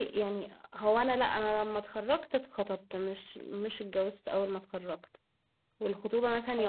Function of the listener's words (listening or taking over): listening